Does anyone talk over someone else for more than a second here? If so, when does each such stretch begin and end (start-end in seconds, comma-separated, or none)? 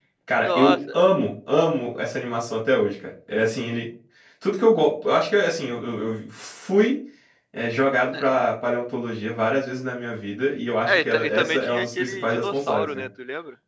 10.8-13.0